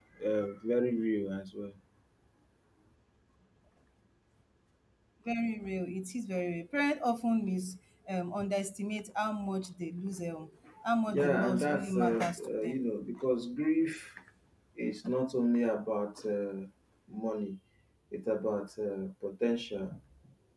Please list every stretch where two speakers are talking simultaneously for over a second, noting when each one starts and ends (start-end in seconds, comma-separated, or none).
11.1-12.8